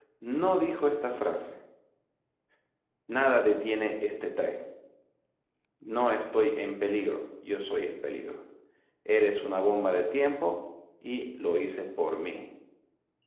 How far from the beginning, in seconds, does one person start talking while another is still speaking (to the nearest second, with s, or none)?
none